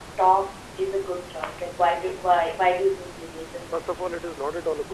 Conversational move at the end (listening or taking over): taking over